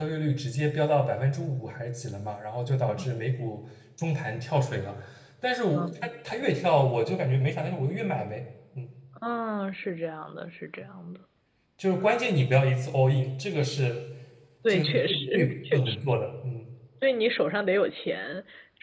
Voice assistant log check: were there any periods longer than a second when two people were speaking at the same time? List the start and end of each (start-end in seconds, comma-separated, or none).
14.7-16.0